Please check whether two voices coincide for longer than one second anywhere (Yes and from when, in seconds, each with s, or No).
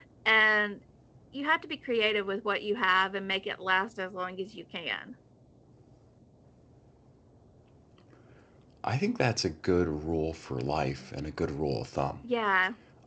No